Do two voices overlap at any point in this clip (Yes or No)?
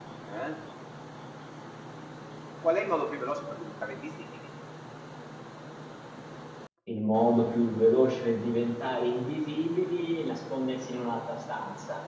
No